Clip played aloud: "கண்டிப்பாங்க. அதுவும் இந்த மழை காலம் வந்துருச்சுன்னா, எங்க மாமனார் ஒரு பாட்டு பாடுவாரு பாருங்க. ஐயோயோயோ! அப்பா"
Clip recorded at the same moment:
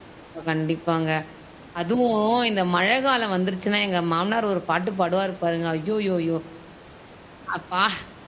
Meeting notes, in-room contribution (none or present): none